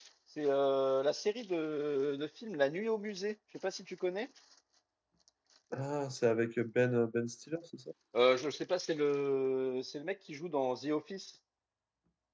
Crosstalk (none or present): none